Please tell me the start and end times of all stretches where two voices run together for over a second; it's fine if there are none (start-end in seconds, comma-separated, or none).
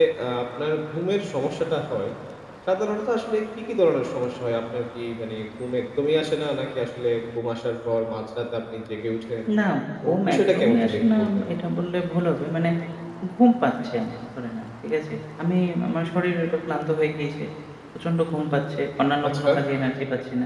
10.1-11.3